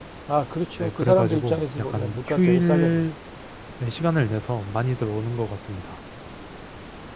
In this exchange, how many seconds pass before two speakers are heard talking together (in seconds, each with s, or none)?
0.8 s